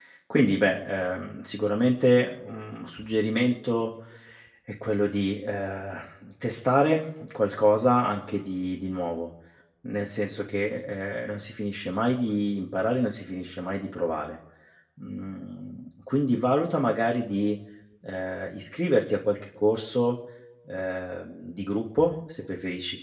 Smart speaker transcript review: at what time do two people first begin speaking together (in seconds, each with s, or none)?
none